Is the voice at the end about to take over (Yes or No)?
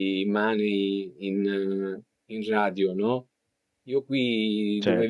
No